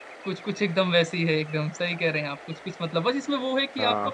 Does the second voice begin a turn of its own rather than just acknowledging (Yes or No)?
No